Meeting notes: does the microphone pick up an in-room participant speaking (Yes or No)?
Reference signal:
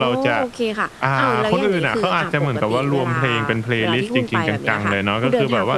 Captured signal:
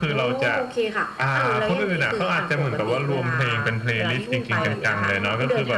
Yes